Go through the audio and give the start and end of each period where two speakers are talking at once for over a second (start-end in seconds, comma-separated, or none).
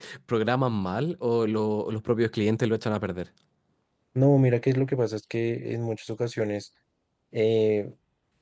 none